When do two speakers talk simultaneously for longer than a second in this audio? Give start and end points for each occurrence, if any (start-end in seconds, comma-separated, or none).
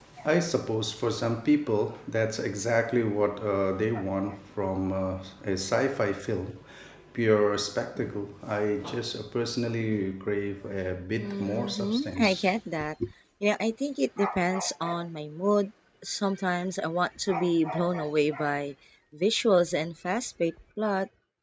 11.2-12.5